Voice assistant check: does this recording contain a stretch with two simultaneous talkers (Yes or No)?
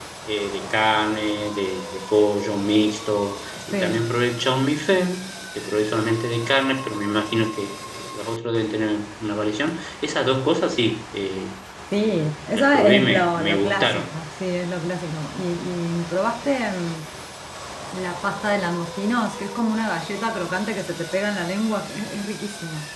Yes